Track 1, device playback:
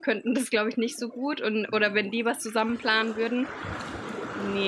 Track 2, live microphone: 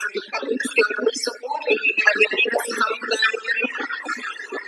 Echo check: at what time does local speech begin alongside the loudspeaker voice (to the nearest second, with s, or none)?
none